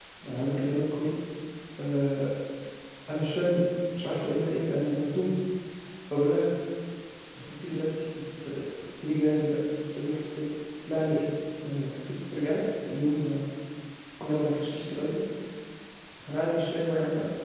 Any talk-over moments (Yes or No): No